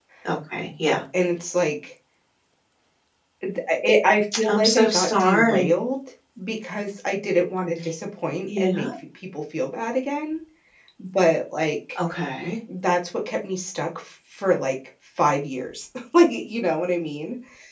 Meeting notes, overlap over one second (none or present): present